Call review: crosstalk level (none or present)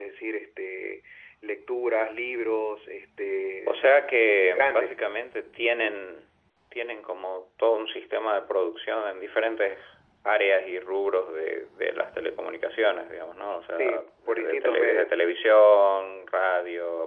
present